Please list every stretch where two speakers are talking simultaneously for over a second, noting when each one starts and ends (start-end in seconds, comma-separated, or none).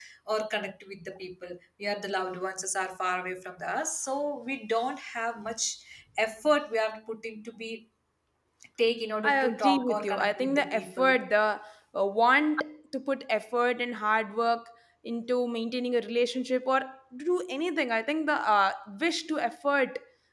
9.2-11.1